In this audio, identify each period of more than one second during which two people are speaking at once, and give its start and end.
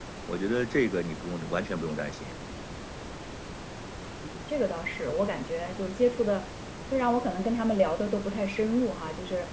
none

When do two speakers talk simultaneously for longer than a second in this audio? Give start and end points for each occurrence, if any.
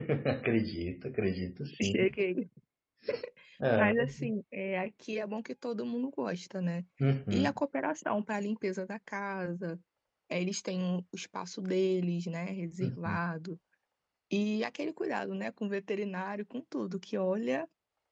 none

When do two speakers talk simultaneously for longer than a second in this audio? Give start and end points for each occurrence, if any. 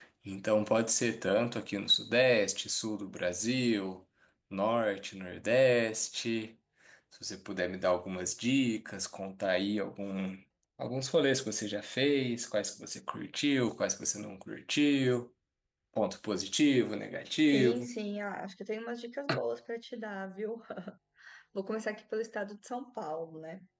none

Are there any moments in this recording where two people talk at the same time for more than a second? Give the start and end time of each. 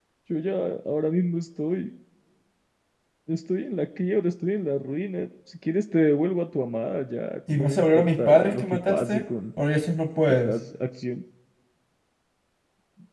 7.5-9.2

